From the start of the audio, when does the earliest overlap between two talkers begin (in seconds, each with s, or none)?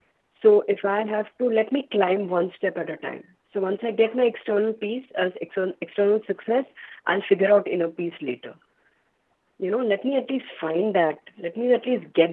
none